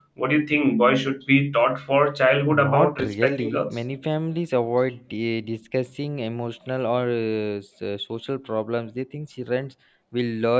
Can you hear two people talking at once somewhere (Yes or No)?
Yes